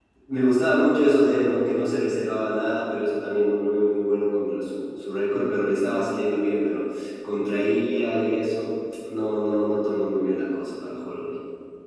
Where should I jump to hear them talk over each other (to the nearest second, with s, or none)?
none